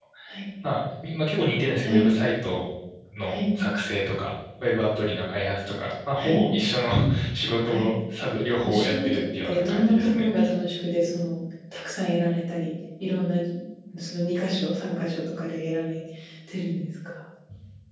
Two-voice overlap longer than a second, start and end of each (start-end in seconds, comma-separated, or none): 8.6-10.2